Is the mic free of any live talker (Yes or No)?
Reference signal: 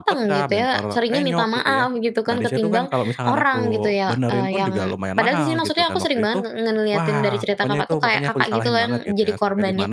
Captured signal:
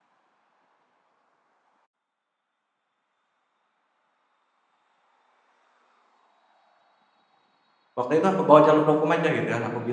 No